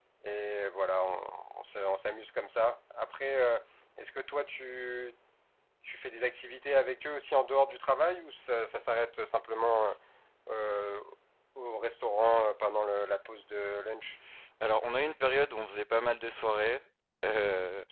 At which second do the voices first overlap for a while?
none

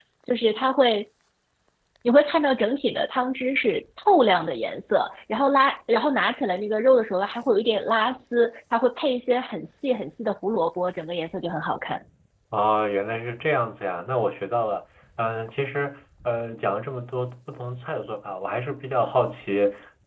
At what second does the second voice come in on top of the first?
none

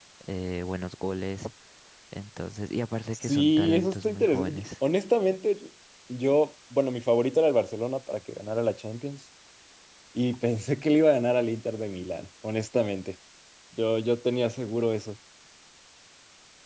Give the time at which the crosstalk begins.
3 s

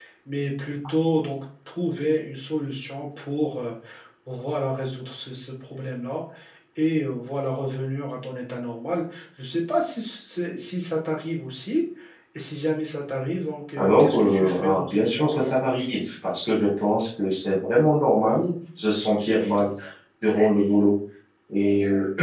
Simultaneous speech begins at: 14 s

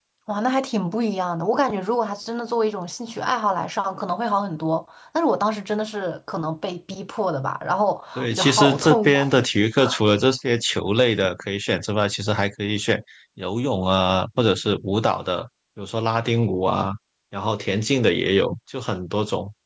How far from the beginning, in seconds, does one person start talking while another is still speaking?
8 s

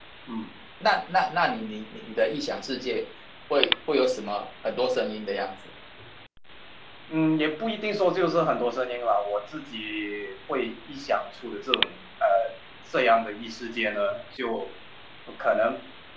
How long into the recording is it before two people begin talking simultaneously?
none

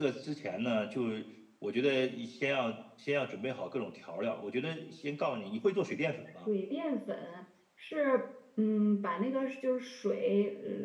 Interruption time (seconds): none

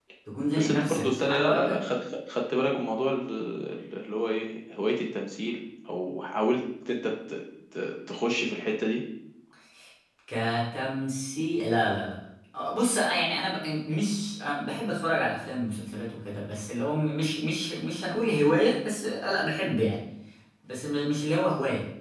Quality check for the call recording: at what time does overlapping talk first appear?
1 s

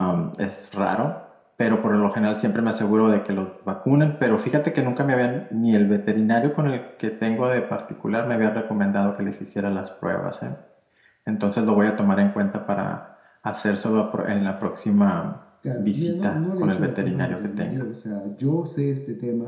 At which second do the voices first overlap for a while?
16 s

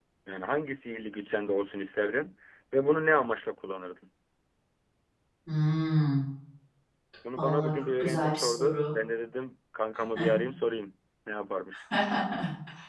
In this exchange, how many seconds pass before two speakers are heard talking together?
7 s

